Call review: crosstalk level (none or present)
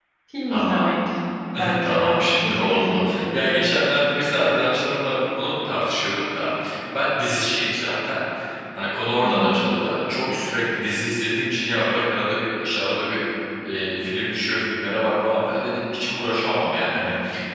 present